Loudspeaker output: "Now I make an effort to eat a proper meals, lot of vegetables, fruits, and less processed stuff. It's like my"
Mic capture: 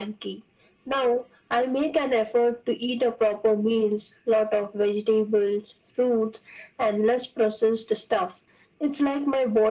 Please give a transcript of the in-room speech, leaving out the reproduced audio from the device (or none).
none